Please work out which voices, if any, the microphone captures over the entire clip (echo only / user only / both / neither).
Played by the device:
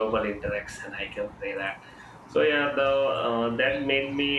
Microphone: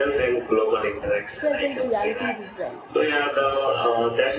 both